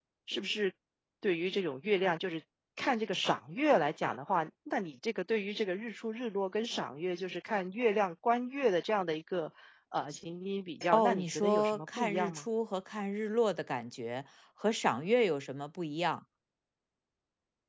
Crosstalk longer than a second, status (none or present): present